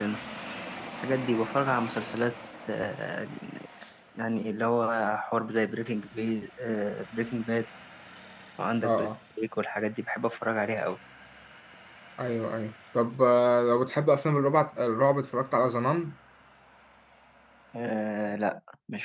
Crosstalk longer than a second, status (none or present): none